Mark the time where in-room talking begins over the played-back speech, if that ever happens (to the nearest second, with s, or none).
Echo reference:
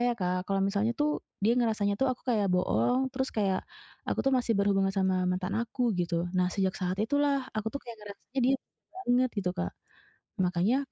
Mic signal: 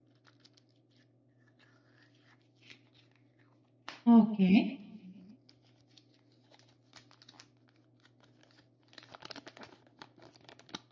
4 s